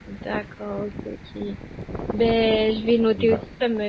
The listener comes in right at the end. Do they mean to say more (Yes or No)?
No